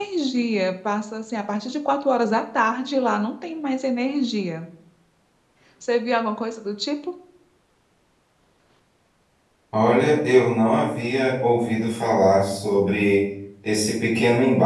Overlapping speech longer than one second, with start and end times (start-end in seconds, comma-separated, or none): none